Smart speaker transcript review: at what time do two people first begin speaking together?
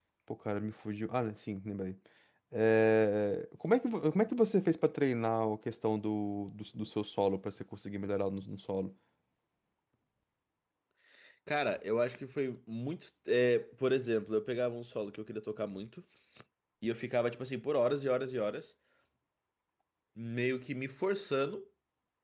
none

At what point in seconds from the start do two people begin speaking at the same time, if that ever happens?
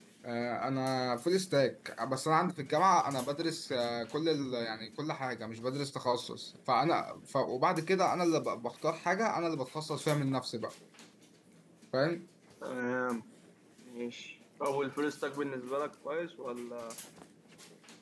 none

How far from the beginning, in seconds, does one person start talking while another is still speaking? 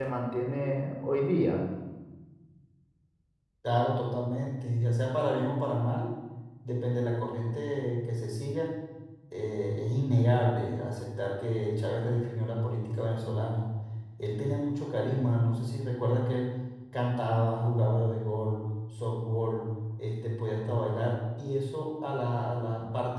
none

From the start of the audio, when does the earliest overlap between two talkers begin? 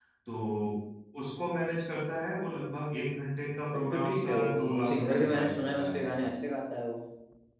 3.7 s

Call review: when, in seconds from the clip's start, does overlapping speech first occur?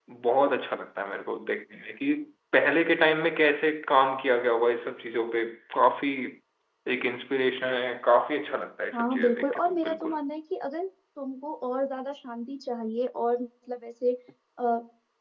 8.9 s

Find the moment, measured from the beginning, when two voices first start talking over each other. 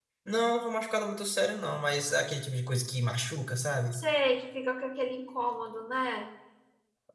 none

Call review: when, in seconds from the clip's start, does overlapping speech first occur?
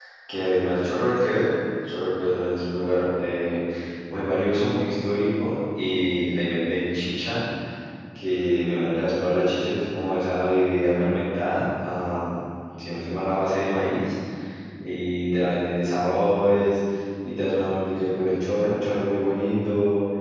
none

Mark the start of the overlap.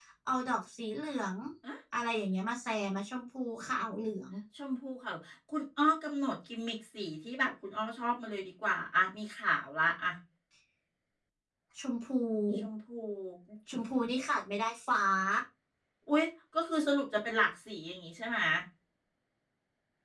none

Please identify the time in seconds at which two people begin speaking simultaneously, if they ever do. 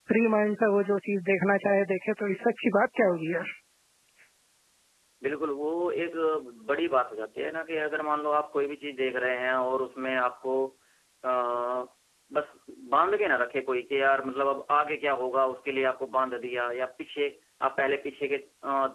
none

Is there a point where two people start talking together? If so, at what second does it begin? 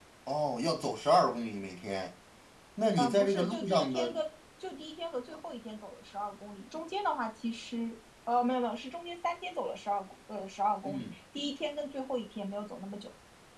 2.9 s

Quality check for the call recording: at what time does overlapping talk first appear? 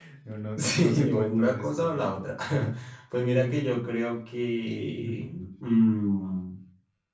0.6 s

